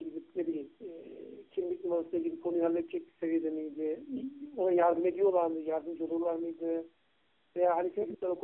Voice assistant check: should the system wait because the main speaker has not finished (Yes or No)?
Yes